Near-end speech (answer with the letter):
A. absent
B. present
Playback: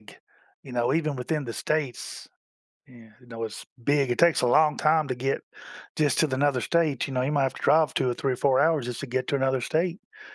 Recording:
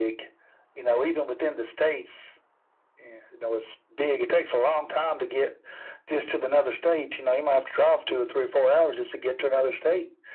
A